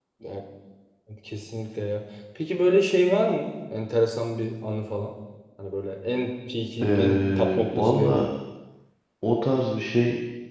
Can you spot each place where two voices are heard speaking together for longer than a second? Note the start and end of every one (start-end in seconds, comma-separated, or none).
6.8-8.3